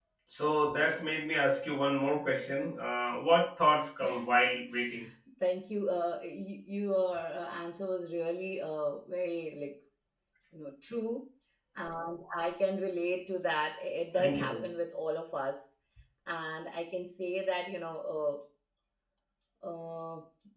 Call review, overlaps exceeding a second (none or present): none